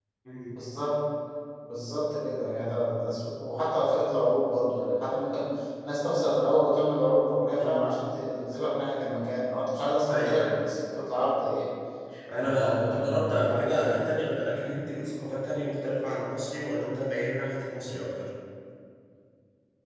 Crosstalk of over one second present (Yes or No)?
Yes